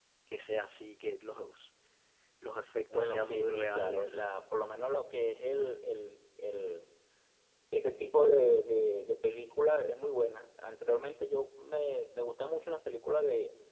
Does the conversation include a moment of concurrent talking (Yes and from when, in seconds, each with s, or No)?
Yes, from 2.9 s